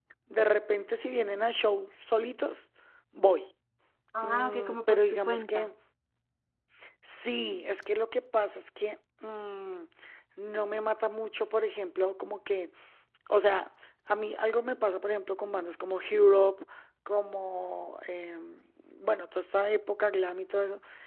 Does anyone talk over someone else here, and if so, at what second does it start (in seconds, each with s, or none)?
4.2 s